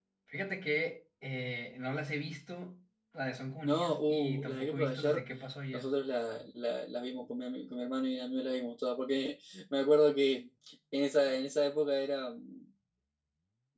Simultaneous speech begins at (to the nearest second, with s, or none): 4 s